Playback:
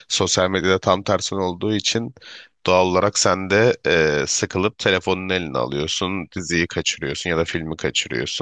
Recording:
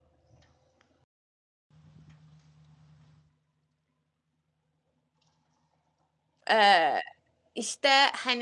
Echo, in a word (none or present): none